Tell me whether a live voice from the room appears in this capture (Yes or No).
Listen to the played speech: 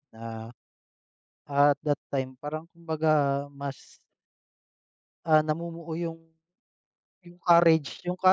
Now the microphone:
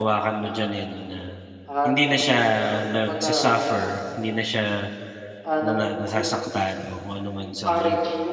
Yes